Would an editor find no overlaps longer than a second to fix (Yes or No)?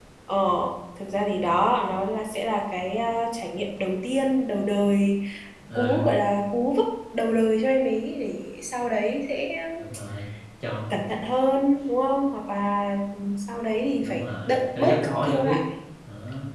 No